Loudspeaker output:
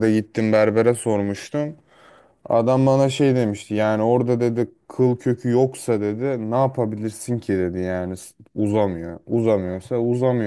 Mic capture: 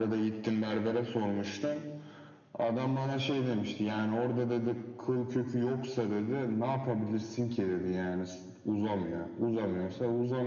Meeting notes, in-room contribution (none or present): none